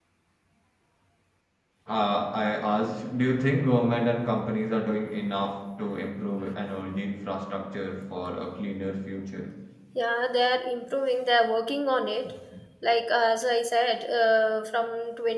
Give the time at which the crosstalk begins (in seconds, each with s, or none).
none